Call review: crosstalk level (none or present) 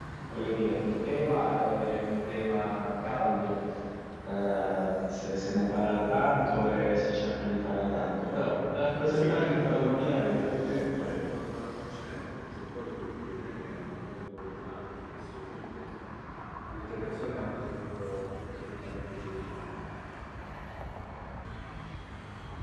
present